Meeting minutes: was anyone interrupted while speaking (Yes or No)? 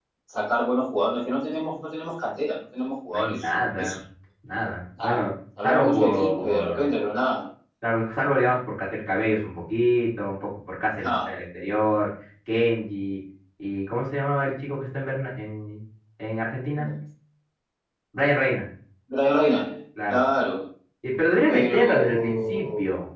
Yes